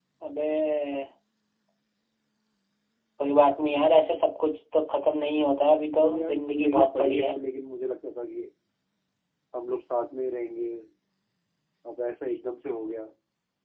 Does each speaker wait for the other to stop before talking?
No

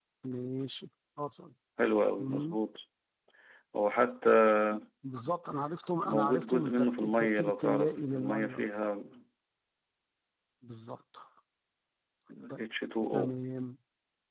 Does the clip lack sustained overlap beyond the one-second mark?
No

